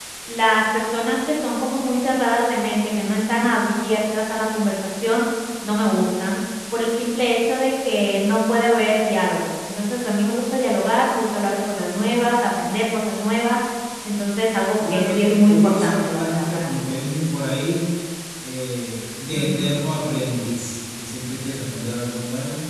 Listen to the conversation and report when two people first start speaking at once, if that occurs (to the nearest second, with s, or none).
15 s